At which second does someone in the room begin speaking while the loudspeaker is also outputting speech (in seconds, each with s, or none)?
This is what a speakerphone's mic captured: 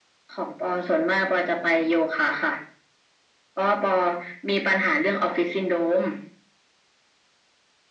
none